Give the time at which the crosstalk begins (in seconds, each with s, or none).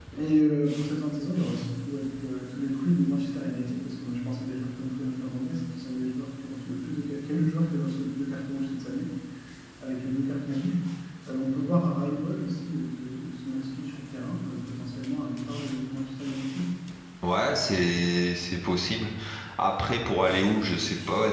none